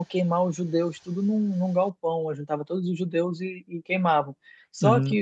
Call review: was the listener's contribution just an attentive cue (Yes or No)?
Yes